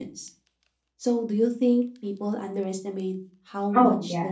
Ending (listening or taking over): taking over